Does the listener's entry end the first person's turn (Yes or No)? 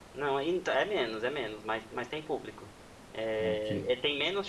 No